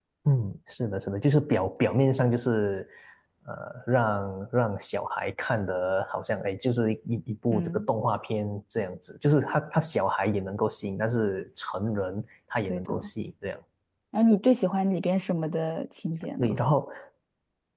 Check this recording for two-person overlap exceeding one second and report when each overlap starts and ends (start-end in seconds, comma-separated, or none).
none